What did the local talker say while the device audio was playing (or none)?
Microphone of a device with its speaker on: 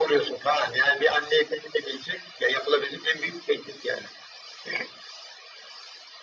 none